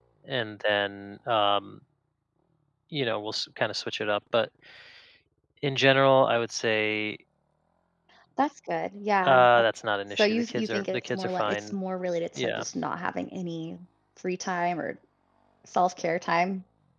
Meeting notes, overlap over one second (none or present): present